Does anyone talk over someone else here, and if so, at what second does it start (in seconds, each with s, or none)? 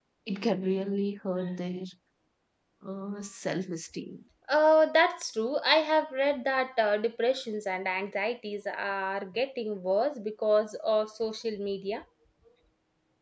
none